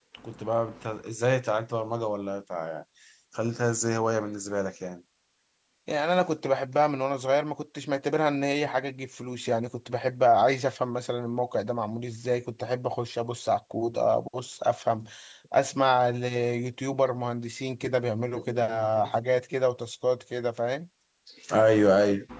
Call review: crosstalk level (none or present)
none